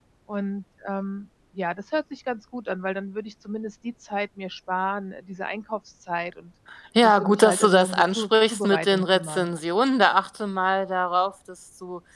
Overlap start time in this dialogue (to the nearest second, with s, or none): 7 s